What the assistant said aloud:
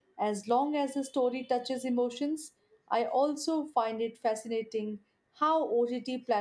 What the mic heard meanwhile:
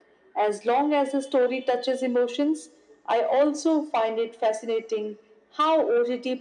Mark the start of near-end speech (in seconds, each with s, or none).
none